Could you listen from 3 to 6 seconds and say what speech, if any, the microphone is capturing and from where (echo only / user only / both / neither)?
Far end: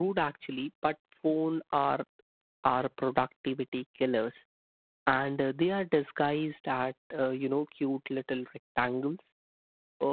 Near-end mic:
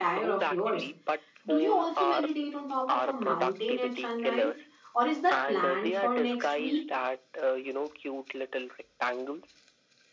both